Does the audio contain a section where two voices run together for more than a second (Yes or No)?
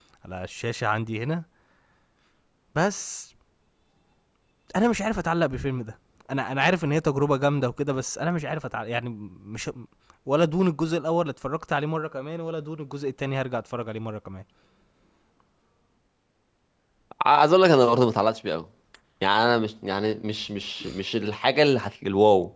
No